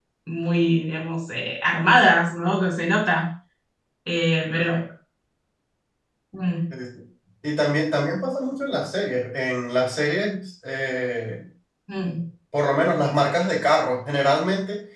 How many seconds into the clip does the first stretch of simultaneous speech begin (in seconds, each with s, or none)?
none